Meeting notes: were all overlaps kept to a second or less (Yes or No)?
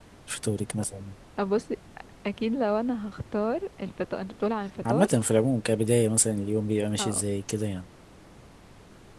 Yes